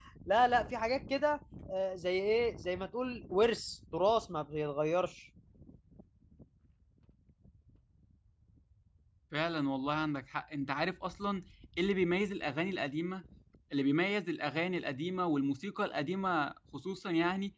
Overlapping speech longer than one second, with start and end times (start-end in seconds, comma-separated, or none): none